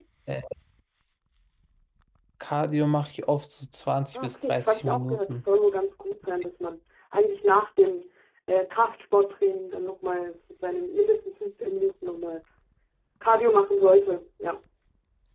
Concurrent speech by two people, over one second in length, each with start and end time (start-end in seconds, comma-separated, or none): 4.1-5.4